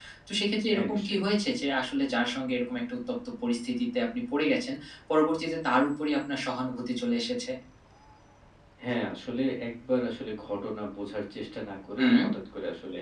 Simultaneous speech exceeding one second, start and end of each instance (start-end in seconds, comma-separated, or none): none